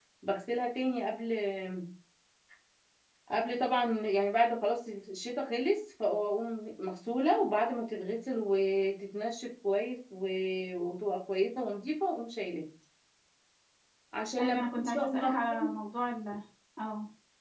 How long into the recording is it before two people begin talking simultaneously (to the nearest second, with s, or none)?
14 s